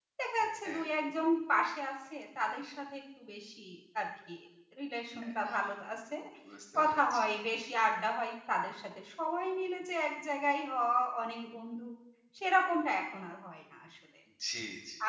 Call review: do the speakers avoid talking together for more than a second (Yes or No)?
Yes